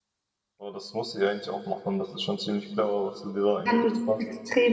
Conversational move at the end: taking over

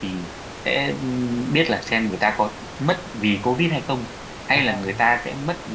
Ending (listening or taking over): listening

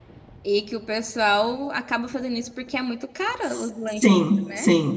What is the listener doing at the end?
taking over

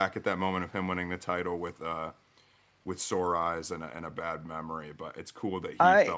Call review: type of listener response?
listening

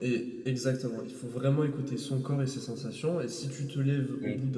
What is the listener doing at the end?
listening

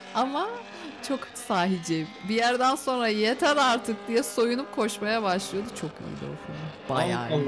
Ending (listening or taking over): taking over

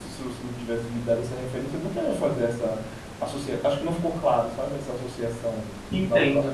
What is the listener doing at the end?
taking over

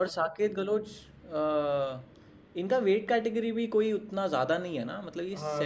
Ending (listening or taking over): taking over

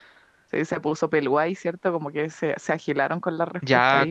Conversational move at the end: taking over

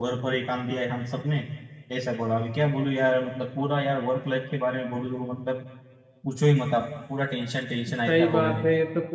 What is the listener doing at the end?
taking over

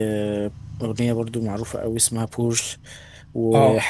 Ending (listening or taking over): listening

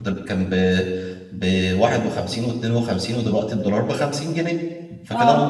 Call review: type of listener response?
listening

